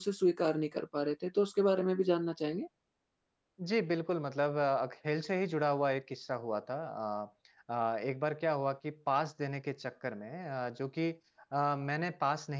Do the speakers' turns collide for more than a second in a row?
No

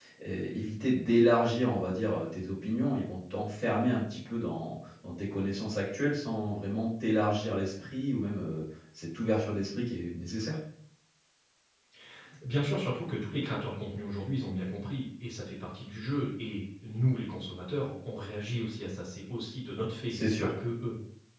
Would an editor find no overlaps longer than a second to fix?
Yes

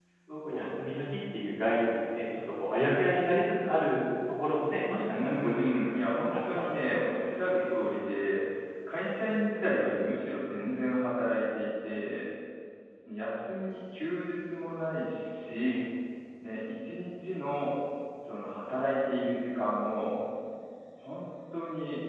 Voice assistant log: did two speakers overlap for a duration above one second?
Yes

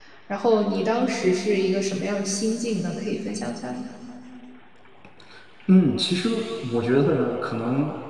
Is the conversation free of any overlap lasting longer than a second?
Yes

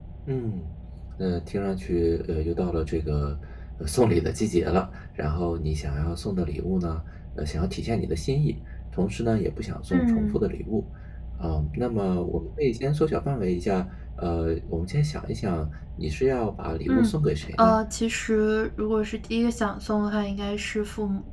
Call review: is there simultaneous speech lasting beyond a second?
No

